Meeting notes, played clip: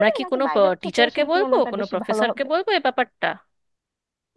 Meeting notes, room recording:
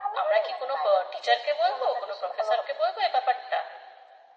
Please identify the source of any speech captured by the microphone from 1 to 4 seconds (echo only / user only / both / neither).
echo only